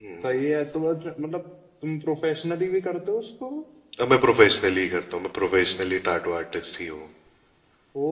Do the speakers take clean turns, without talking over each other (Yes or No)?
Yes